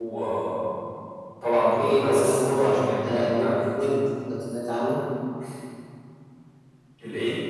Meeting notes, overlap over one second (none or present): present